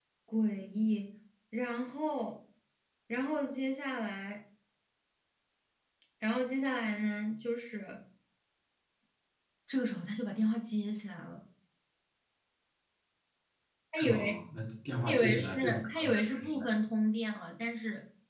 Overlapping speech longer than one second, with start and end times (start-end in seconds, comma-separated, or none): 15.1-16.6